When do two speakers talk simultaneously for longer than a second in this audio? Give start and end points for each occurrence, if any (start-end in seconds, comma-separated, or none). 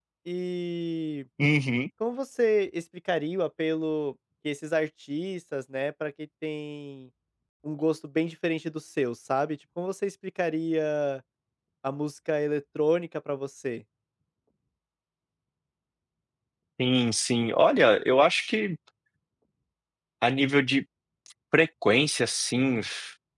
none